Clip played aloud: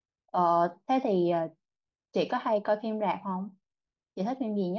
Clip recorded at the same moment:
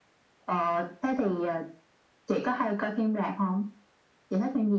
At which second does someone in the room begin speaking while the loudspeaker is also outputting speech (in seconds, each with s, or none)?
none